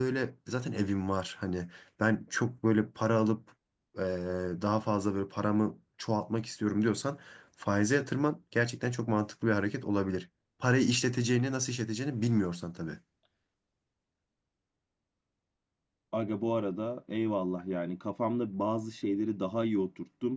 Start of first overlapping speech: none

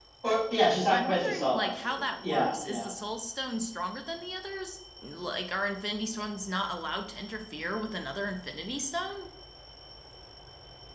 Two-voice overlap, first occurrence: 1 s

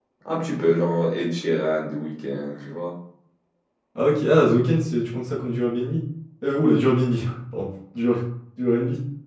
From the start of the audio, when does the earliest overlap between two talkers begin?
none

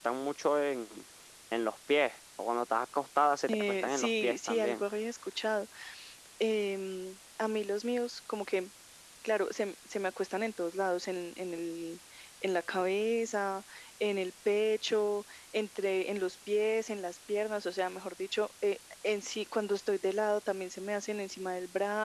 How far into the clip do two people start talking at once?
3 s

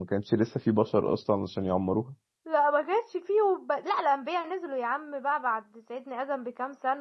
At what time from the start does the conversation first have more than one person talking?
none

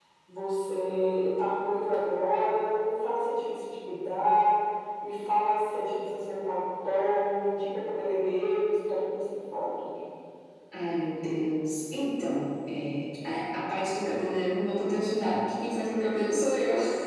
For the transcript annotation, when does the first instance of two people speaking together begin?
none

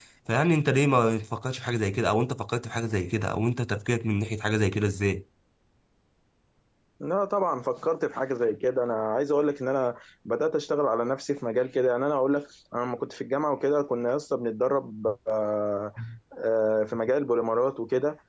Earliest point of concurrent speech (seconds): none

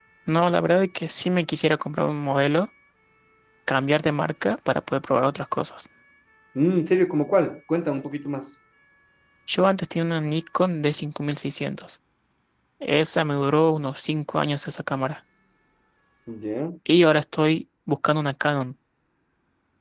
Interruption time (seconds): none

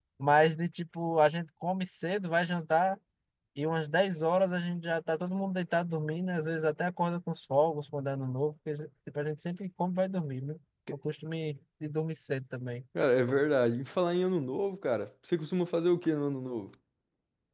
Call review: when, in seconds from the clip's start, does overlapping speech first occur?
none

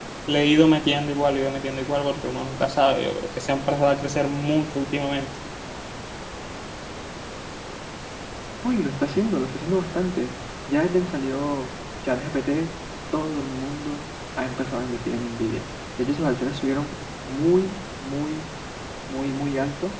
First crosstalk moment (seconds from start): none

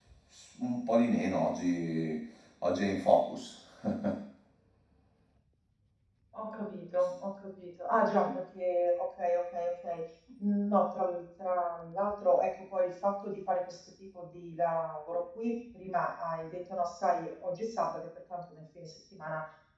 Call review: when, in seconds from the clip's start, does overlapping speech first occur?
none

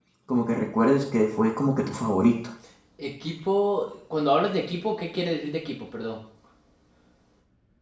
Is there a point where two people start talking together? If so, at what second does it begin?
none

